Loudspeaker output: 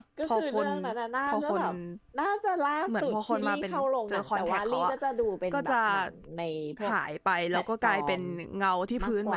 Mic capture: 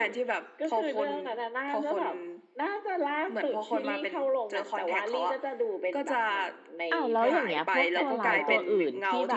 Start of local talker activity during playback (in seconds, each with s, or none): 6.9 s